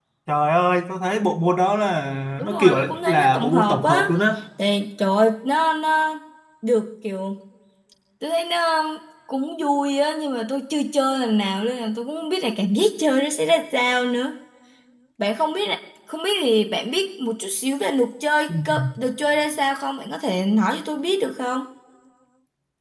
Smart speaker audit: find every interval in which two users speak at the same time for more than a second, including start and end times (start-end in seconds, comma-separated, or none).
2.4-4.0